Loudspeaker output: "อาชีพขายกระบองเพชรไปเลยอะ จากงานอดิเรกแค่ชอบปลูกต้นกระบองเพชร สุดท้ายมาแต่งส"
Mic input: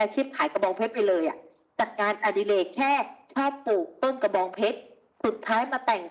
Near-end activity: none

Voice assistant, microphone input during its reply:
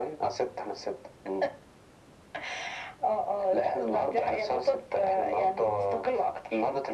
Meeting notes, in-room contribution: none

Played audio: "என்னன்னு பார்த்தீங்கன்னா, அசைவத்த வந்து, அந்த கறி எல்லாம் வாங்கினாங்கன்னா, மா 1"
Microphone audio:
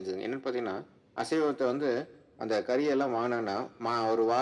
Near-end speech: none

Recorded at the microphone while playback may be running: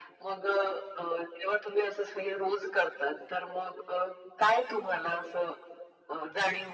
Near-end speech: none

